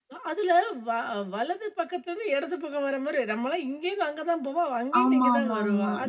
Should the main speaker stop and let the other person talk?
Yes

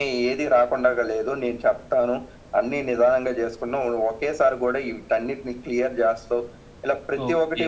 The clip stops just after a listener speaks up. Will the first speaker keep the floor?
No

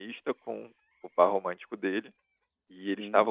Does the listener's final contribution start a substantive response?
No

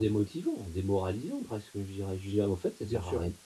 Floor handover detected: Yes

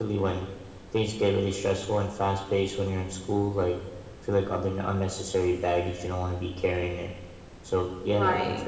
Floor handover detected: No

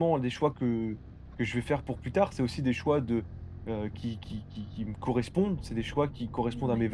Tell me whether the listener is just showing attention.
Yes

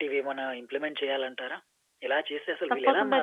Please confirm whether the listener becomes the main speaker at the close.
Yes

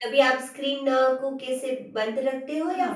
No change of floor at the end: No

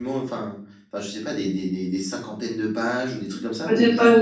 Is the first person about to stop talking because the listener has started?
Yes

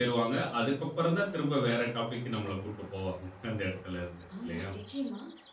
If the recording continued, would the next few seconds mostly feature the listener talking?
Yes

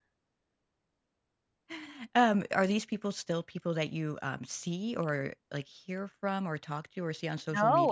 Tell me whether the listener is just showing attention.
No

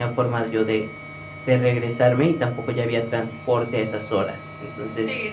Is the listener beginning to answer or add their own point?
Yes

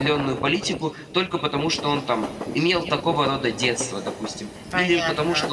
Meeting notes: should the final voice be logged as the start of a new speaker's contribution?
No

